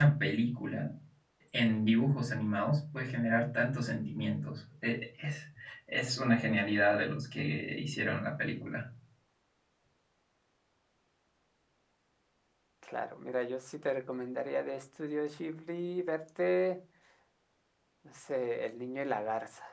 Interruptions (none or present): none